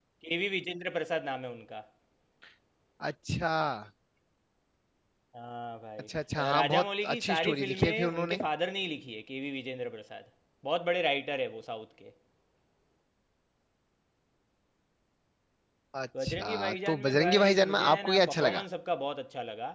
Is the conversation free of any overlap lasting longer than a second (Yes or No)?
No